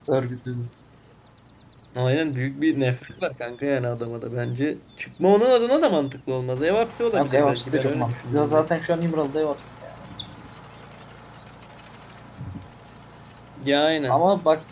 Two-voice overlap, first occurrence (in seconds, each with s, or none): 7.1 s